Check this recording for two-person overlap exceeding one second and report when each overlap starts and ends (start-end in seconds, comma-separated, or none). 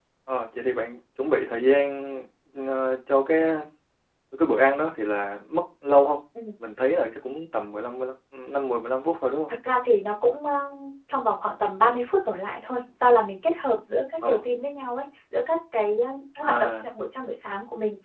none